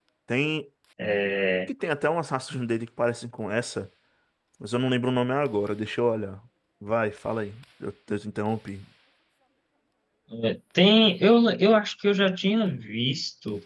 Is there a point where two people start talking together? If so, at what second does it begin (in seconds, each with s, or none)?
none